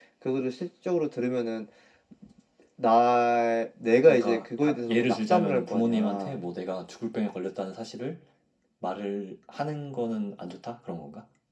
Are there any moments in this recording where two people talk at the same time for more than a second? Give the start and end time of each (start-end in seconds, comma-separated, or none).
4.0-6.4